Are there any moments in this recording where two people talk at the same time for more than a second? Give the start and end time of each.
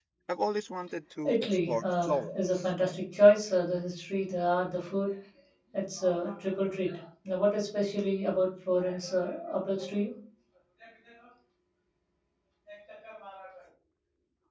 1.2-2.6

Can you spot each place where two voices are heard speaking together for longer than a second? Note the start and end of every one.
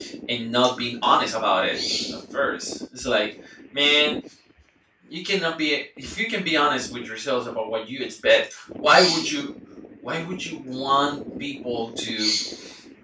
none

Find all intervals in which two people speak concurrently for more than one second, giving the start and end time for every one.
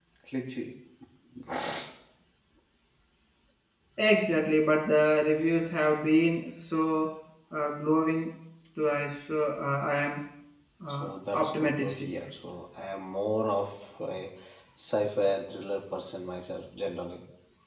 10.9-12.1

